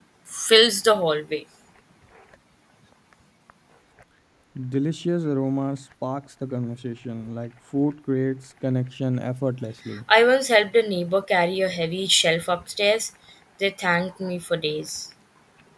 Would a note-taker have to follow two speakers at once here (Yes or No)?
No